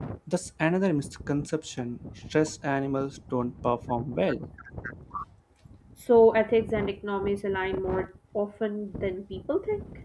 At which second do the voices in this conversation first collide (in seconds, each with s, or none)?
none